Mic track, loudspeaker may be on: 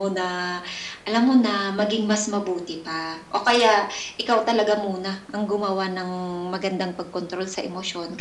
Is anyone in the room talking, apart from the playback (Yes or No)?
No